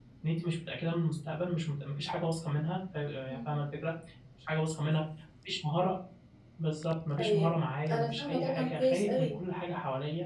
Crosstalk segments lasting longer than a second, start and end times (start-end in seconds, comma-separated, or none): 7.9-9.4